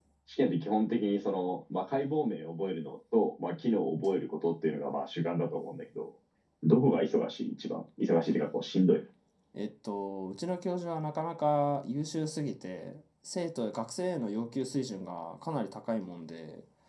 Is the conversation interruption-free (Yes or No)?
Yes